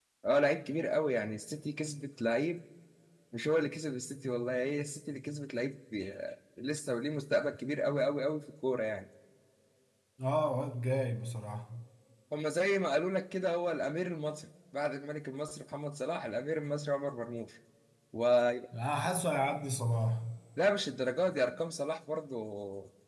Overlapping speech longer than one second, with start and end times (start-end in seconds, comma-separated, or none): none